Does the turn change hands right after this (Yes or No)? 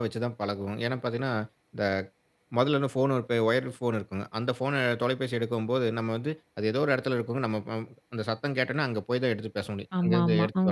No